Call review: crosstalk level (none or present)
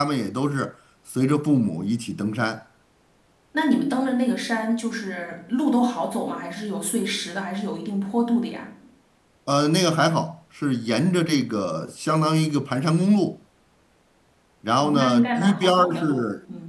present